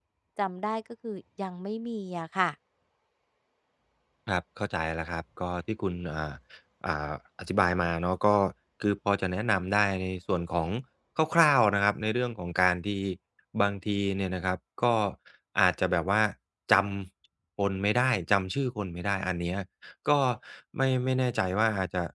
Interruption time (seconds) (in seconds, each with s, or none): none